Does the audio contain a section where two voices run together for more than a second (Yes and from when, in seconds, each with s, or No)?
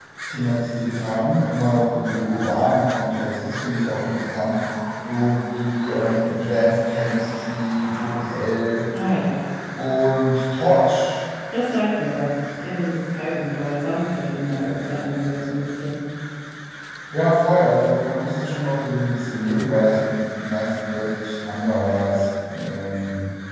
No